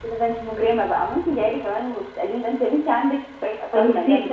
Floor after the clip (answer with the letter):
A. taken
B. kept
A